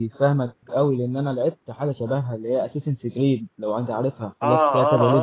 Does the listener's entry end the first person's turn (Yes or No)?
Yes